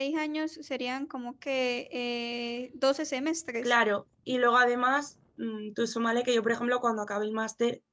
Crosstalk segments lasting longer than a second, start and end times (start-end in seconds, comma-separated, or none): none